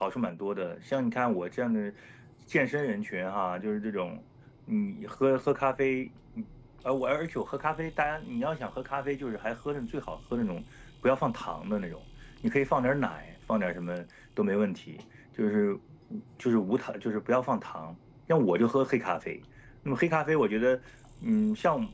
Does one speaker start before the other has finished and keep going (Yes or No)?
No